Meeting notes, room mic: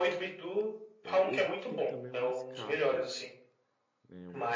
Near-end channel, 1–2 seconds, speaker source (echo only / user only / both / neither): both